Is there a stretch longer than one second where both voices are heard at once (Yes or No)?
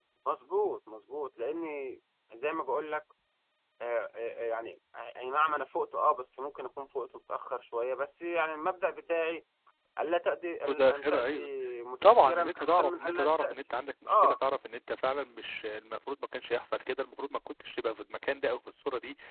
Yes